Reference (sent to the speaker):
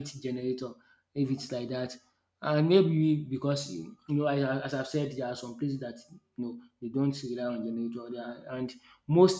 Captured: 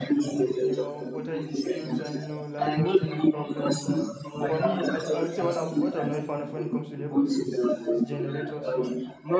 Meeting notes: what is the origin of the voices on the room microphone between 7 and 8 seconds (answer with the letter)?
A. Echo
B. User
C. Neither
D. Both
D